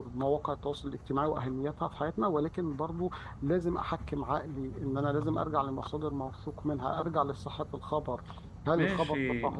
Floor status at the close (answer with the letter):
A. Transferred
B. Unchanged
A